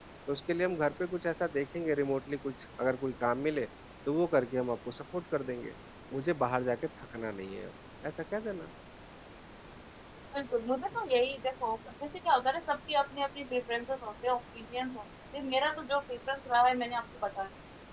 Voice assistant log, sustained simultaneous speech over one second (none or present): none